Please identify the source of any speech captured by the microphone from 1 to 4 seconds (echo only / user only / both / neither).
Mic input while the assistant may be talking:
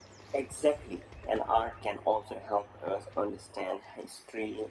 echo only